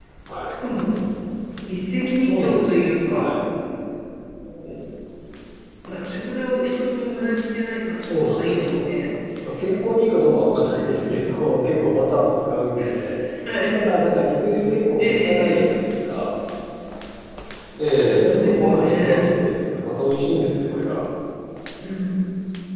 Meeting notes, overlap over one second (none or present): present